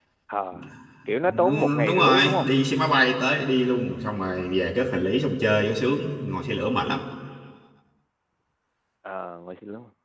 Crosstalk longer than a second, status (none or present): present